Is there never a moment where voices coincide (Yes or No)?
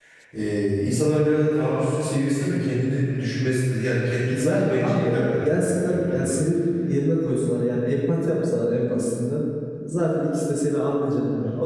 No